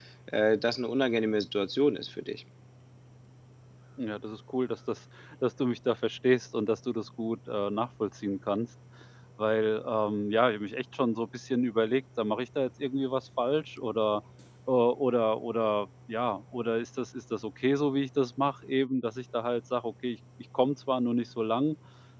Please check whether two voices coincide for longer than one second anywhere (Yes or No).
No